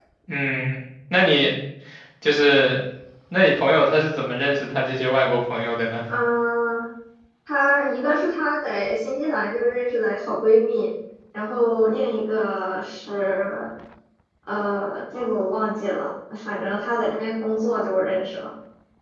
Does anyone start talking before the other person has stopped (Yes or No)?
No